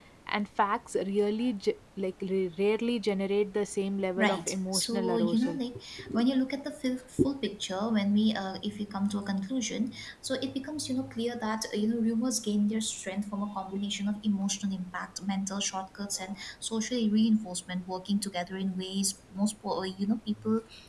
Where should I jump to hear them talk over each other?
4.2 s

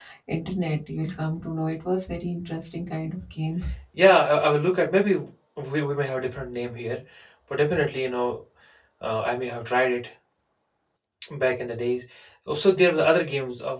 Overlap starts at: none

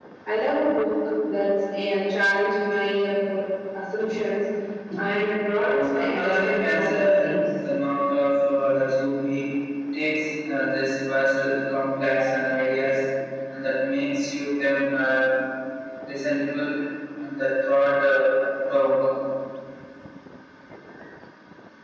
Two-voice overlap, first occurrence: 5.8 s

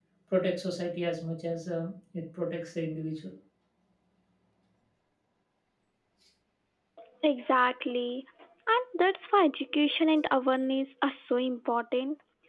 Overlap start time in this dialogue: none

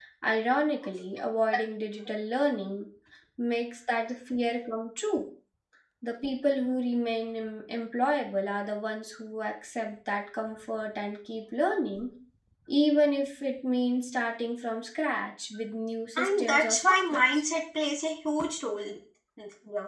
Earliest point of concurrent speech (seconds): 16.2 s

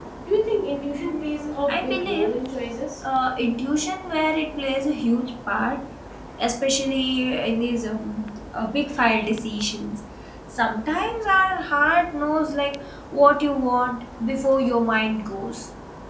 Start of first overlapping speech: 0.9 s

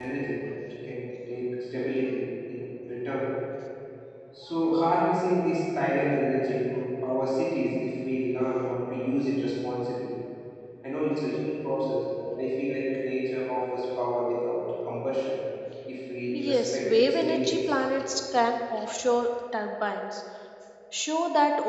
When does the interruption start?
16.3 s

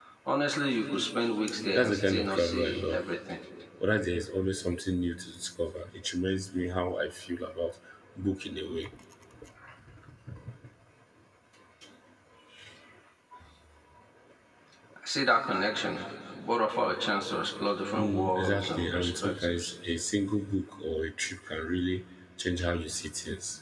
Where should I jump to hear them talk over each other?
1.7 s

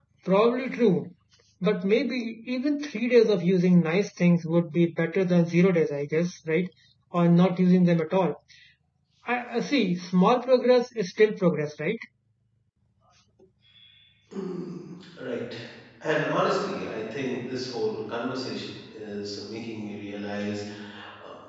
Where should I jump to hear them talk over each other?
none

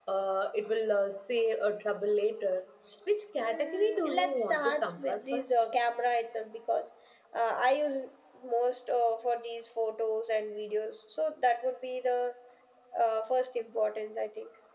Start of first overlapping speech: 3.4 s

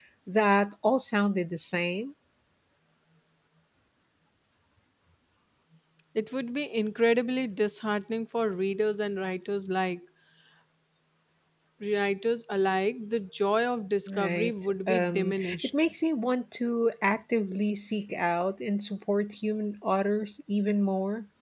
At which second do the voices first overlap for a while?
14.1 s

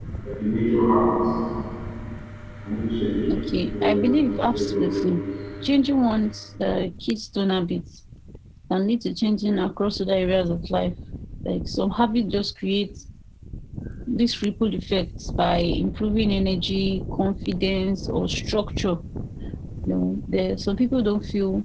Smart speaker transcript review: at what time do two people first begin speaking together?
3.8 s

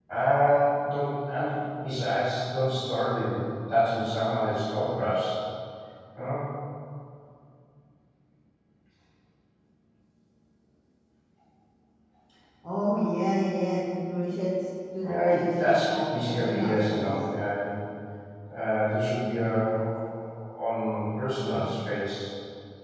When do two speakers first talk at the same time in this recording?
15.0 s

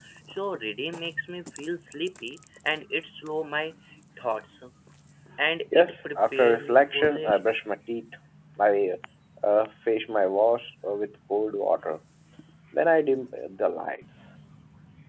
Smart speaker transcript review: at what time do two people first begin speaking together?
5.7 s

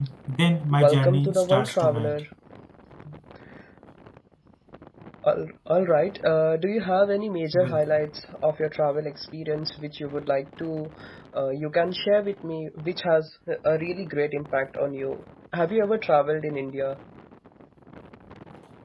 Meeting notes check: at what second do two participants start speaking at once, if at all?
0.7 s

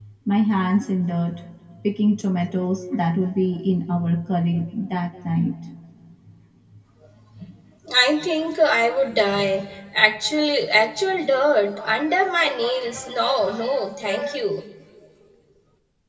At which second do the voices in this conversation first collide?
none

